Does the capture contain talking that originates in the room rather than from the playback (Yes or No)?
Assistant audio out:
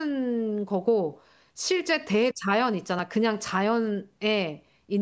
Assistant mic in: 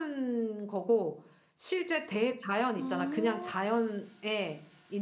Yes